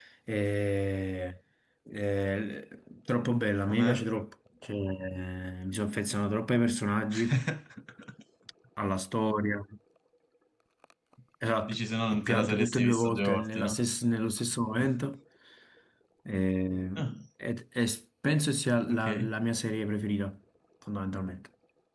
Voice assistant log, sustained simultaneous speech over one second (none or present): present